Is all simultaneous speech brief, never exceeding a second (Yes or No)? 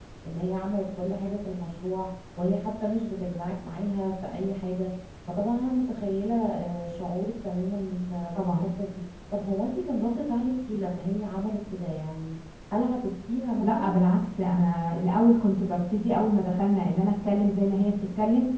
Yes